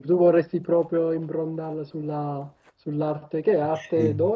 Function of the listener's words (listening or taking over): listening